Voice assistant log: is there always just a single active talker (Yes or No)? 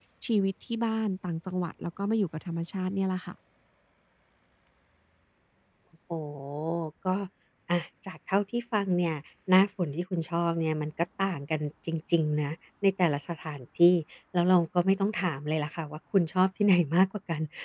Yes